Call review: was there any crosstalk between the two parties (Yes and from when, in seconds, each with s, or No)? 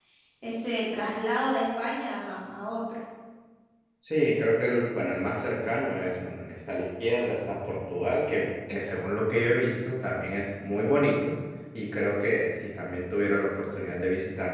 No